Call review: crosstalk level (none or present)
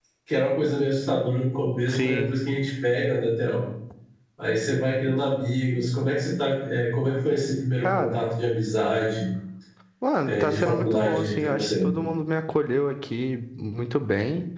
present